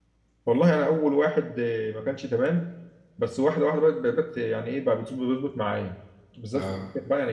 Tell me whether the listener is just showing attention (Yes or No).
Yes